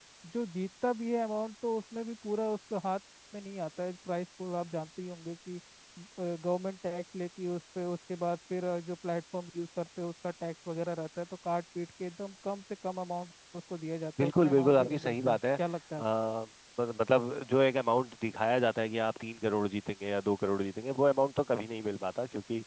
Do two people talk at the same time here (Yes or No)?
Yes